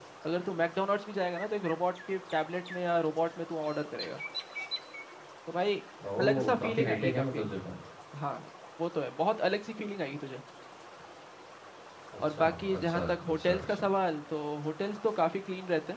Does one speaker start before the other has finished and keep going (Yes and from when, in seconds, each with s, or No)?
Yes, from 6.2 s